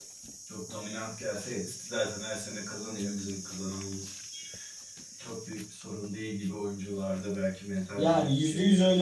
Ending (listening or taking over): taking over